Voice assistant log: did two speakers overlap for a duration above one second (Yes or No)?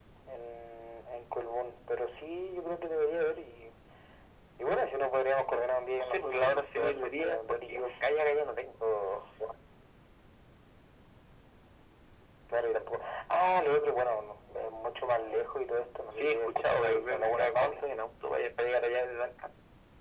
Yes